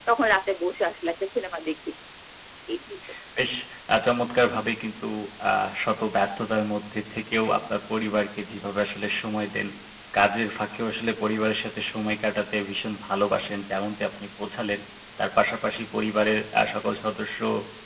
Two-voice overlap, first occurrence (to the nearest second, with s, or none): none